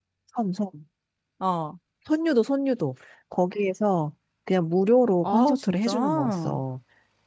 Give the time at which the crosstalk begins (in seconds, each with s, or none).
5.2 s